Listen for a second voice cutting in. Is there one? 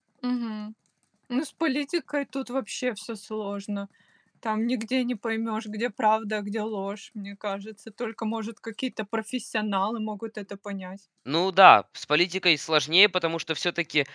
No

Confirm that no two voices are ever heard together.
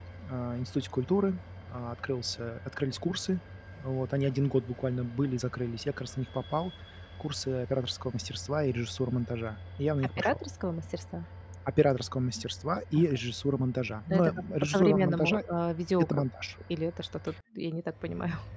No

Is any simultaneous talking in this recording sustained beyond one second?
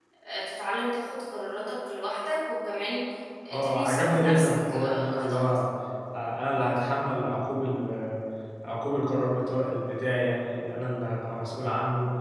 Yes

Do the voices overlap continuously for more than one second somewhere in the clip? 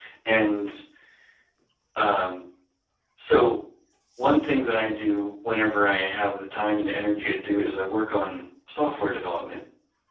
No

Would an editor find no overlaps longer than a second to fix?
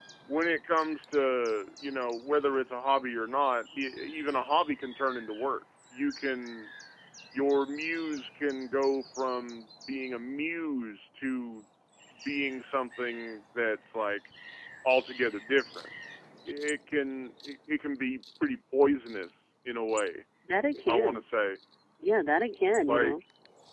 Yes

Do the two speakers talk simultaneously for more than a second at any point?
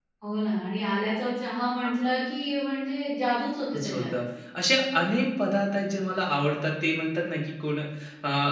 No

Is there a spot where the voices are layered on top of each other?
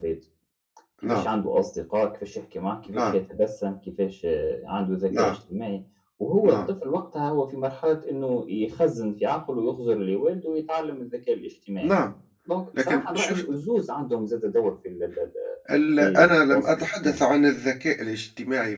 Yes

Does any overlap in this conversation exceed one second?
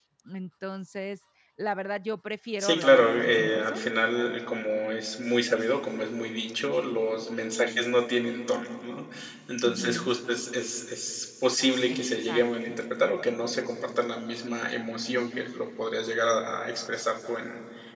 Yes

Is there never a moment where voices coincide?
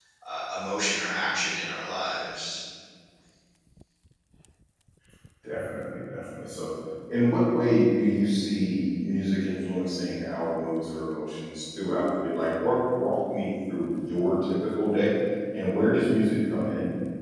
Yes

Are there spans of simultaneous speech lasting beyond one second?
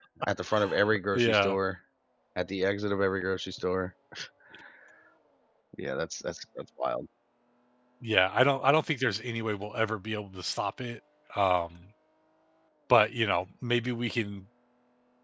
No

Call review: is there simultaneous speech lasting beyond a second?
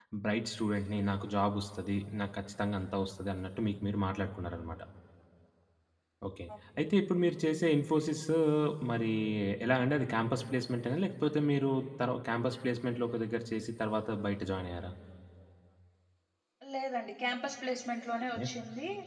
No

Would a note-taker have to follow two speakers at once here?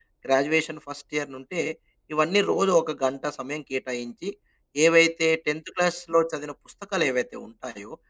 No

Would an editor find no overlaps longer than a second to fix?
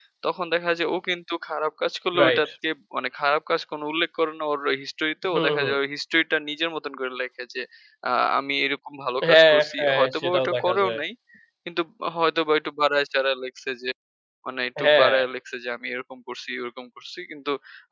No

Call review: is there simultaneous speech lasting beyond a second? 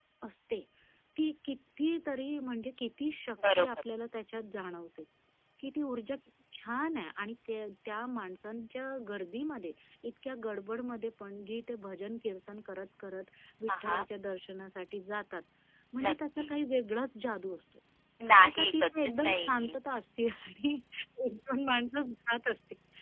Yes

